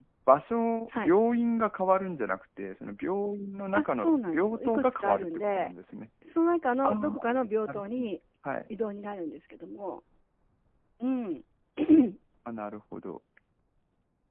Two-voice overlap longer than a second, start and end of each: 3.7-5.7

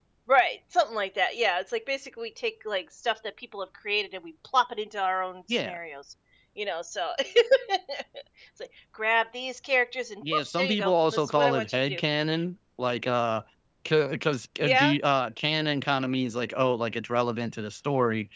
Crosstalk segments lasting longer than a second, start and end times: 10.2-12.0

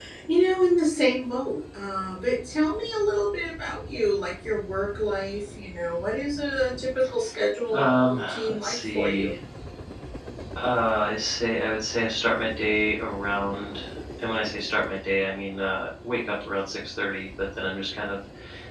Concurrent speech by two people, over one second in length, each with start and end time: 7.7-9.3

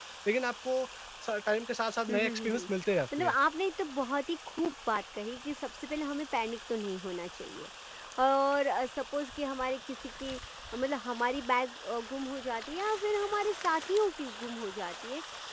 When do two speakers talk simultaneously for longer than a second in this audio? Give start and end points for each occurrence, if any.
none

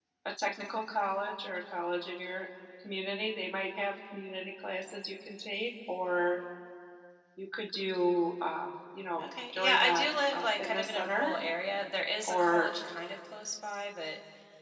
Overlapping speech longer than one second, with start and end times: 9.2-11.3

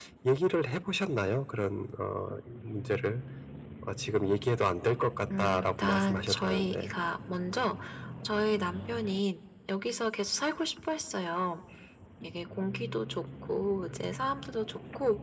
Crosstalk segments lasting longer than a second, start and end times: 5.4-6.9

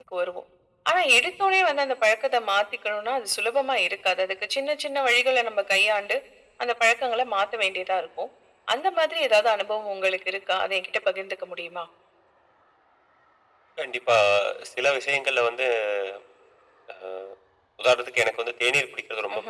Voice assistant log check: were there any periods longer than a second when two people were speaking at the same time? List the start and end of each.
none

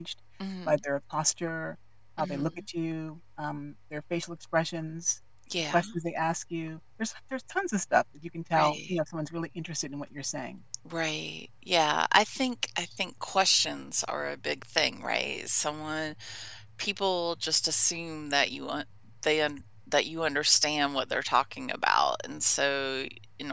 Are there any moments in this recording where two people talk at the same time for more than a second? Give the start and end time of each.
none

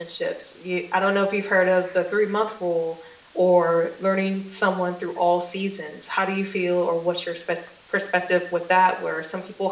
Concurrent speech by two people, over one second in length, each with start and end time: none

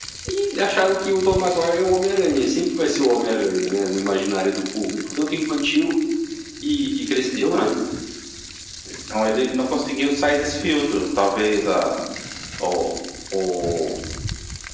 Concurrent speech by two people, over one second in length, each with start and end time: none

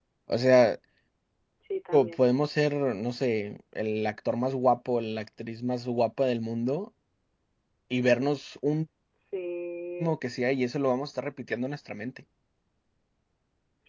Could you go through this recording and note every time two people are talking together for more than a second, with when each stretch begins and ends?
none

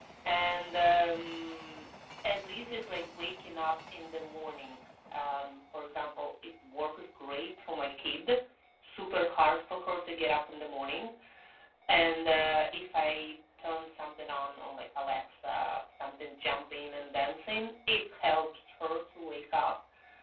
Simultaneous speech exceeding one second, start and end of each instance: none

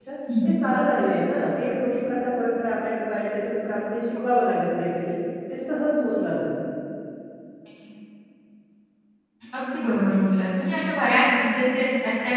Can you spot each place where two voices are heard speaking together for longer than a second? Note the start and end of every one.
none

